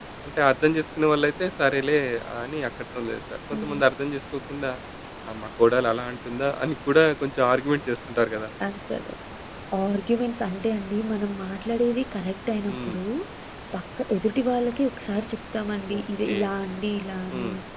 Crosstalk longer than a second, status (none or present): none